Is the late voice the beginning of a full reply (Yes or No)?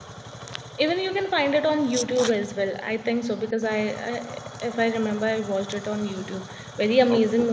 No